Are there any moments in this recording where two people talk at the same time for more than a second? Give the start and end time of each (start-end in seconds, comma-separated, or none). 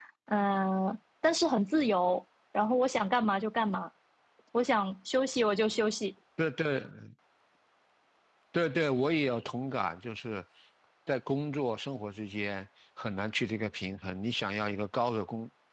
none